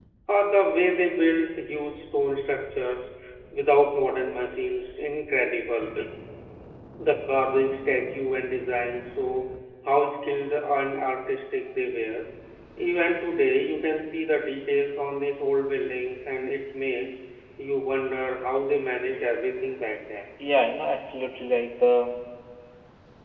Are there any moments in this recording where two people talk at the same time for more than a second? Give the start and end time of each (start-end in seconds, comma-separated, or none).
none